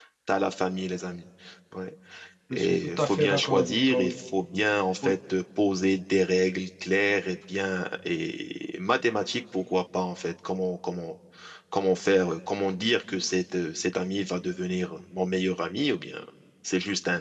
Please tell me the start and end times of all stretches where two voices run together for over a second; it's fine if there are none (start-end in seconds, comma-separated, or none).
2.5-4.1